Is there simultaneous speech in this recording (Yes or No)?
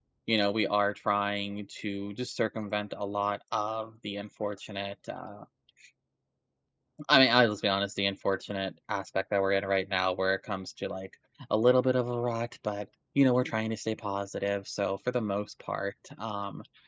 No